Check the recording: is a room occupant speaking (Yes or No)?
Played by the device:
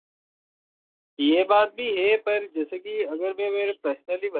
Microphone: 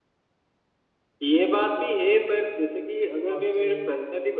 Yes